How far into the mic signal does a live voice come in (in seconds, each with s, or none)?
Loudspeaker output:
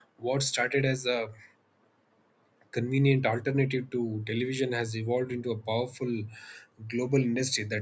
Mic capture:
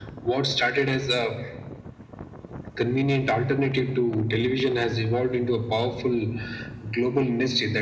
none